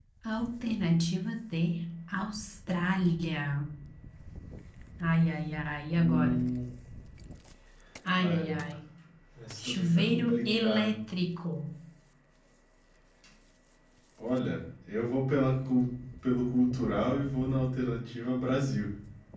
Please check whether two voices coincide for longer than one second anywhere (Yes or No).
Yes